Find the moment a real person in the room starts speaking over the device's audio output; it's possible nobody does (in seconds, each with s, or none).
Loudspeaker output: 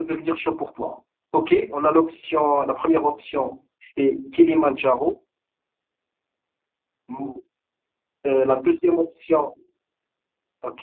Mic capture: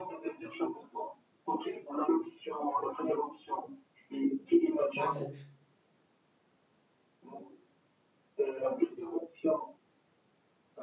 4.9 s